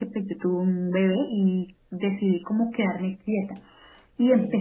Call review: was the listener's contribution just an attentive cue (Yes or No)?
Yes